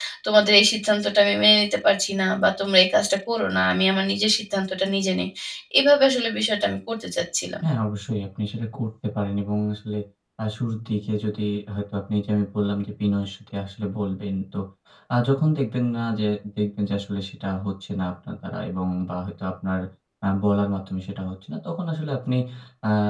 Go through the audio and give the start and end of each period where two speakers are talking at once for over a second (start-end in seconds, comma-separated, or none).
none